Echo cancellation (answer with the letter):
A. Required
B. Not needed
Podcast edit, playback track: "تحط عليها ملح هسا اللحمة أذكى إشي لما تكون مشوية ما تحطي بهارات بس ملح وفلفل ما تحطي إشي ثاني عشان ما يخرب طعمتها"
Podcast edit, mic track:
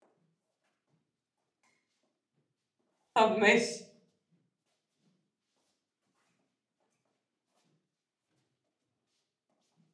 B